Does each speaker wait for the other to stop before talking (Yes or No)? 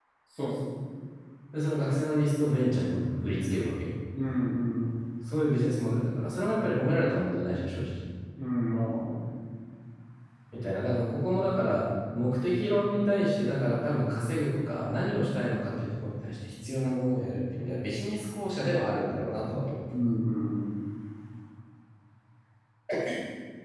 Yes